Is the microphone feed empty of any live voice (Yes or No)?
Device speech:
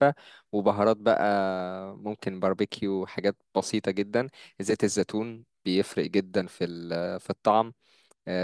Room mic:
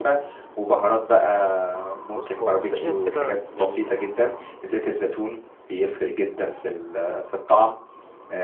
No